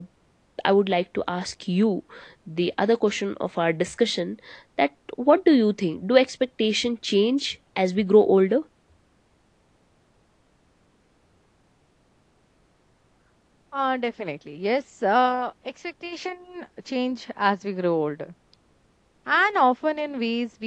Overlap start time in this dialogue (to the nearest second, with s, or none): none